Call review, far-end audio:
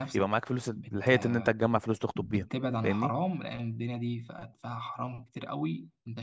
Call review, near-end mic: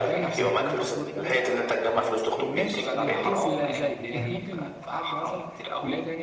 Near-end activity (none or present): present